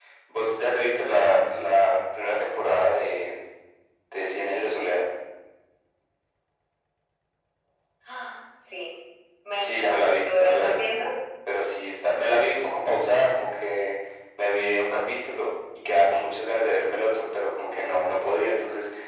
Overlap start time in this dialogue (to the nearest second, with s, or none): 10 s